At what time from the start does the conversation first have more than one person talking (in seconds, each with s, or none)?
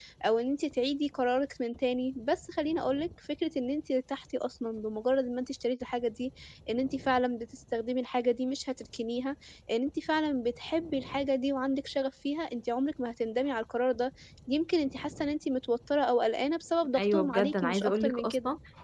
16.9 s